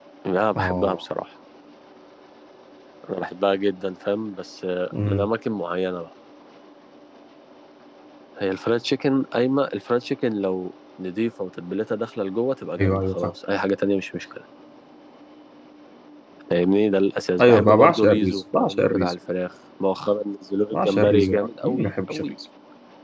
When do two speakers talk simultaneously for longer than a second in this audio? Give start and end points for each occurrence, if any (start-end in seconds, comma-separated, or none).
17.4-19.1, 20.7-22.2